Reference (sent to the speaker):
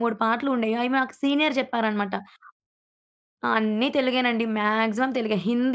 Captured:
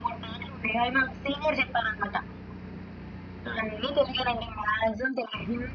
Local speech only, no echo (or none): none